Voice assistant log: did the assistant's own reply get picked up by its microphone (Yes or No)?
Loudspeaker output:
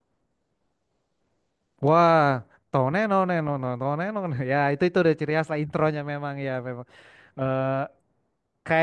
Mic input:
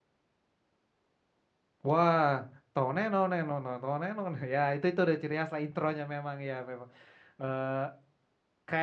Yes